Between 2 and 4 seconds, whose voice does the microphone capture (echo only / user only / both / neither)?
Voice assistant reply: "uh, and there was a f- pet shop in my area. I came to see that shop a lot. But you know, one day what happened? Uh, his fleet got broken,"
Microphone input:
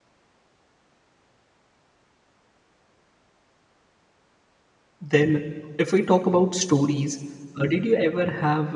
neither